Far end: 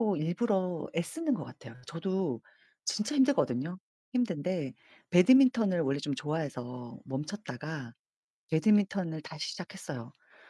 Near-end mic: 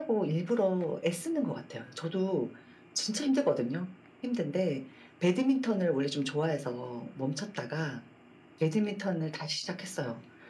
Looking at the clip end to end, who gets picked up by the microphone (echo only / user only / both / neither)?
echo only